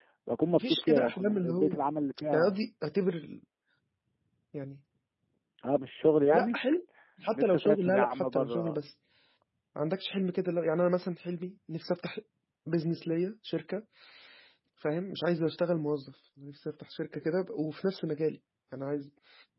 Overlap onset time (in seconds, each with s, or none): 0.6 s